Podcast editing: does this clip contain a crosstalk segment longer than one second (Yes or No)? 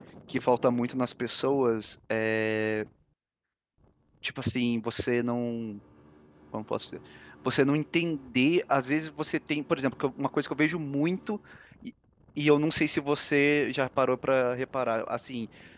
No